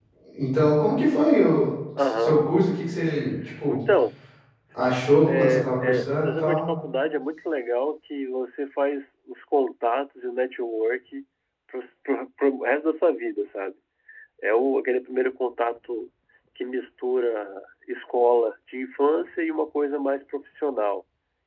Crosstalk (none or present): present